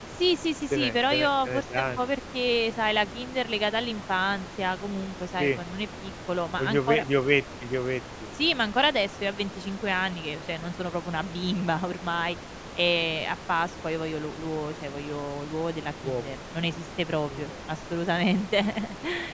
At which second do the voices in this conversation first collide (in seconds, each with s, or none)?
0.7 s